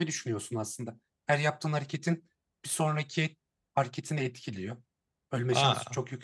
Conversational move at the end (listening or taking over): listening